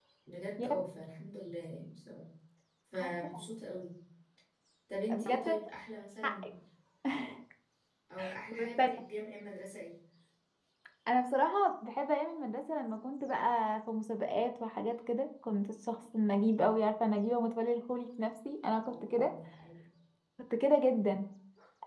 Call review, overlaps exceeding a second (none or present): none